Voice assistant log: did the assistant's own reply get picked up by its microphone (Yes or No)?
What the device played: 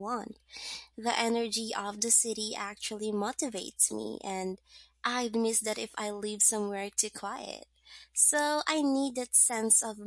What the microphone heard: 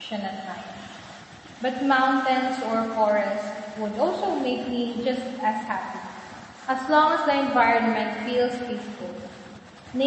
No